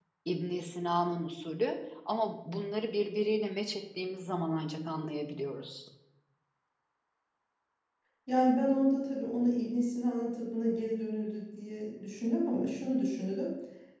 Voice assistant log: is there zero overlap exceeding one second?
Yes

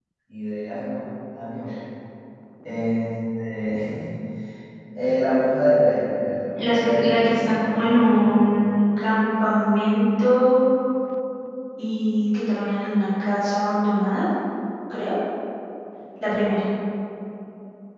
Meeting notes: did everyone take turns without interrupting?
No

